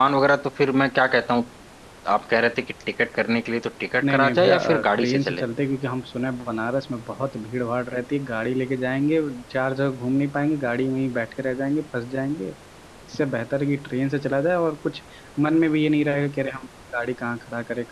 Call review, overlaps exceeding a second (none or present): present